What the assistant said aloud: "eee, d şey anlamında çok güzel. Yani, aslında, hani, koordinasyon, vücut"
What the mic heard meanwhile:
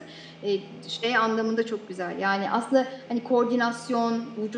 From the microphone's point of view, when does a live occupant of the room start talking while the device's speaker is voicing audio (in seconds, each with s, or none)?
none